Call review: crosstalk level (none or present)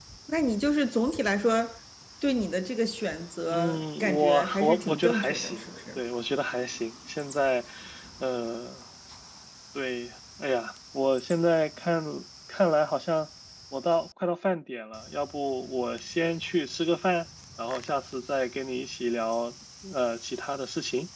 present